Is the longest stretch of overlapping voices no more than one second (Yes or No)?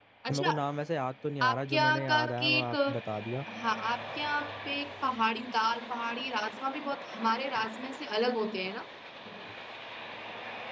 No